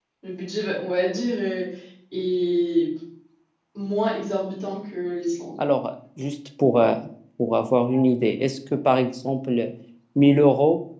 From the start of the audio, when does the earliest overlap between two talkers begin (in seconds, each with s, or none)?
none